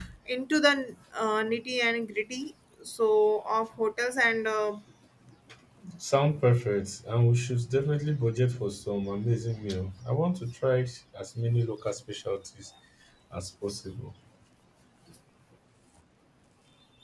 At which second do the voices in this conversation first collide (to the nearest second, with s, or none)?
none